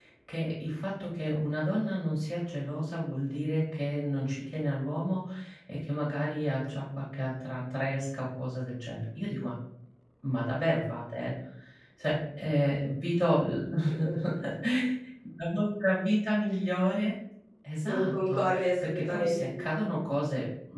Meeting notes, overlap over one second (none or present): present